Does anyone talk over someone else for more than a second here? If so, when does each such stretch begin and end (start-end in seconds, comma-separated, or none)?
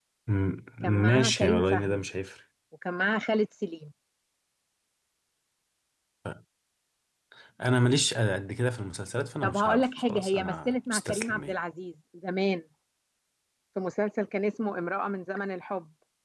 0.8-2.0, 9.4-11.5